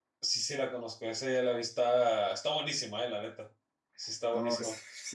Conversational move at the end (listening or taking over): taking over